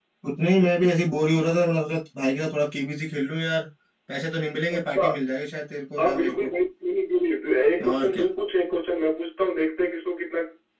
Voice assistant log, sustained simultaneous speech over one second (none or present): none